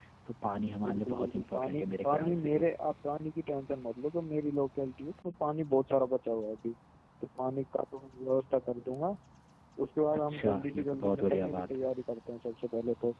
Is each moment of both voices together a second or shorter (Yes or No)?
No